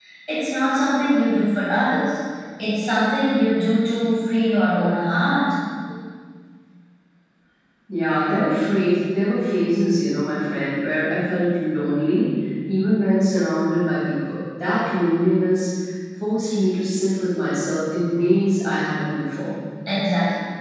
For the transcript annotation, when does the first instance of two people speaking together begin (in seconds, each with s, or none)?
none